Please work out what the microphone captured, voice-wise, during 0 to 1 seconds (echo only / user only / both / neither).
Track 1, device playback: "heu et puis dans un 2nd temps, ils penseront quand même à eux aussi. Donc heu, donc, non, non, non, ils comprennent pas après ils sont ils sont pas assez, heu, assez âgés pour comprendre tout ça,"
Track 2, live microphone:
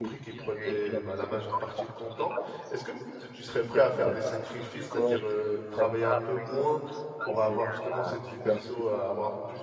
both